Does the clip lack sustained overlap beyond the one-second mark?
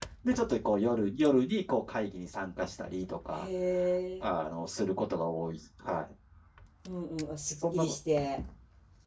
Yes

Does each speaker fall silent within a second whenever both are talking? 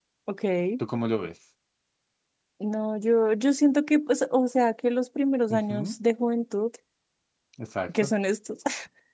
Yes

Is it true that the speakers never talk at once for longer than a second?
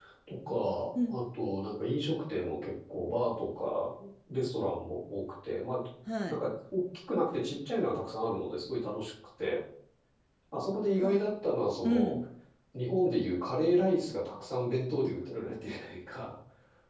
Yes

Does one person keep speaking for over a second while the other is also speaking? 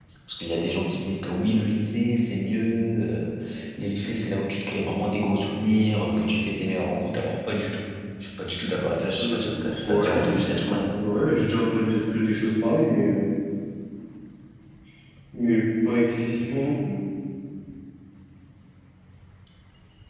Yes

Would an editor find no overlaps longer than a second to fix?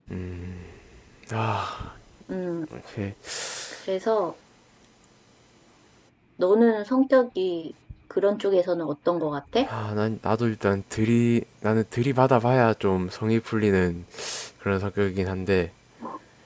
Yes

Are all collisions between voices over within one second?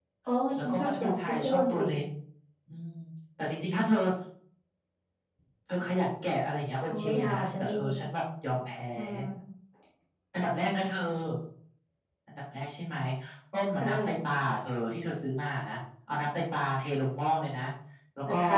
No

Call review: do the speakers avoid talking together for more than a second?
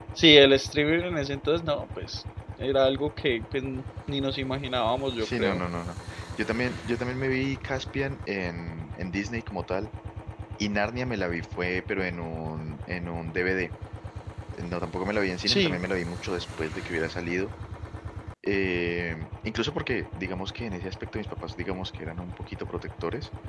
Yes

